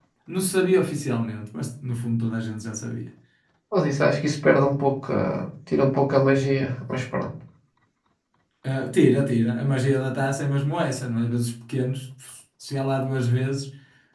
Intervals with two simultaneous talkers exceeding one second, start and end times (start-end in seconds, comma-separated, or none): none